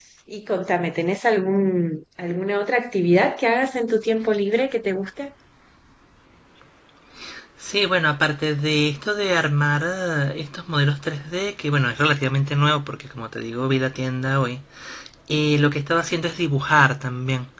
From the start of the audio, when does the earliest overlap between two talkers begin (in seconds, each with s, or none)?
none